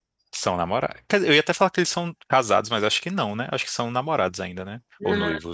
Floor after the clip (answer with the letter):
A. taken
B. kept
A